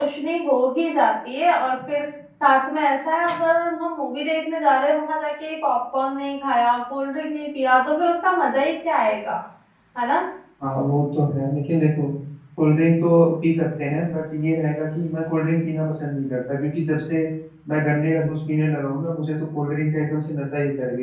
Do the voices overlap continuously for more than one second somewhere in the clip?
No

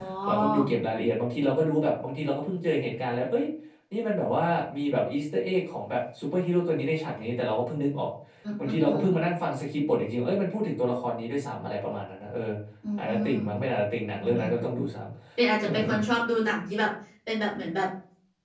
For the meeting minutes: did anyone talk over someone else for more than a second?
No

